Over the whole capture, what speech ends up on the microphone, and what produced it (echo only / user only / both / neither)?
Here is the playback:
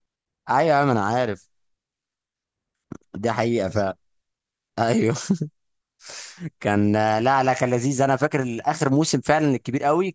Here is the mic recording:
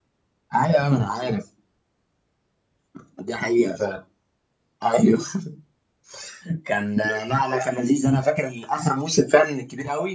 echo only